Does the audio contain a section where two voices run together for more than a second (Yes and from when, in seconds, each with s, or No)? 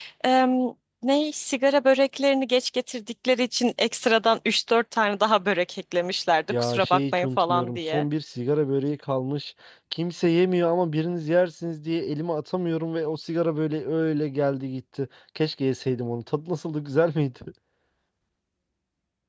Yes, from 6.5 s